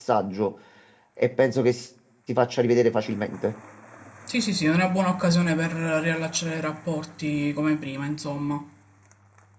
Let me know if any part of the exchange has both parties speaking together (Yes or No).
No